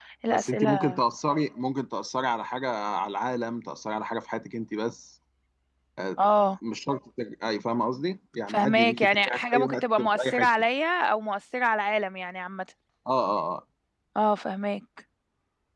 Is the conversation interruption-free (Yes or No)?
No